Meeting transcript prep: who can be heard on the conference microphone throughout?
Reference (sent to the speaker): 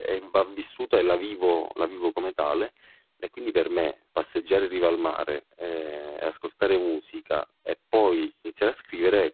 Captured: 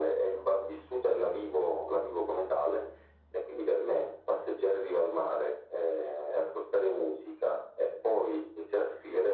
echo only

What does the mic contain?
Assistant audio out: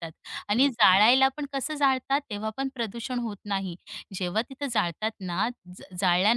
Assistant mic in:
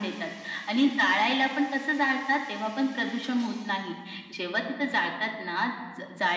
echo only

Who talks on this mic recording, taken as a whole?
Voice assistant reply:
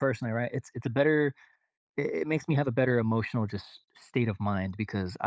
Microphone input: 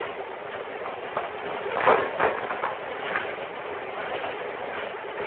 neither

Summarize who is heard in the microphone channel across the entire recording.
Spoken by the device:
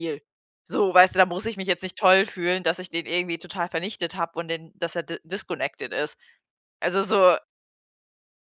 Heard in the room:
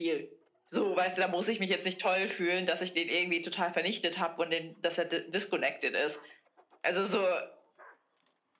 echo only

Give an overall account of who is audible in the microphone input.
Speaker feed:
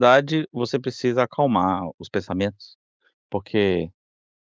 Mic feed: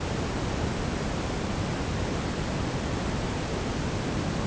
neither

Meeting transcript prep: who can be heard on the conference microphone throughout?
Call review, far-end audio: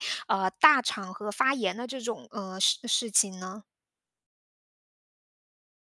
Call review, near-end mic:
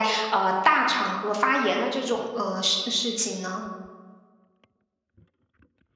echo only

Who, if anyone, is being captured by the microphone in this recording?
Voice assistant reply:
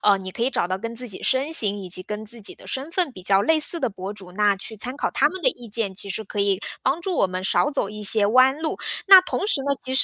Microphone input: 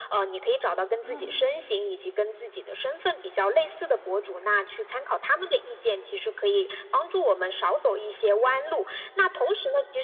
both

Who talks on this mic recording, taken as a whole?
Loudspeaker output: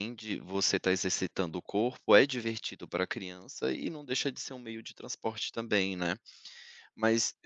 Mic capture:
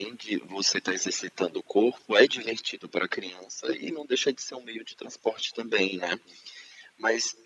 echo only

